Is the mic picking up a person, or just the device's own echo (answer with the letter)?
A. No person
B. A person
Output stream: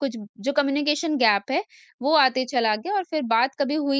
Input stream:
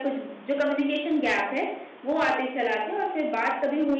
A